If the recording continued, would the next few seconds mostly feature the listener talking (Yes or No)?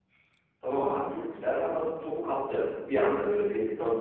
Yes